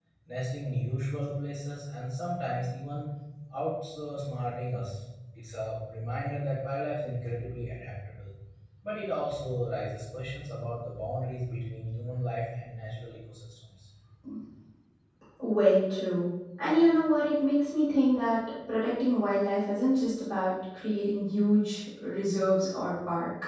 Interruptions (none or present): none